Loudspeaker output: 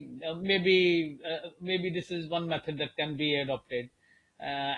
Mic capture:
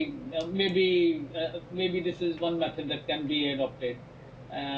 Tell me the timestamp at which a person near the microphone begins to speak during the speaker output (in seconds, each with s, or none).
none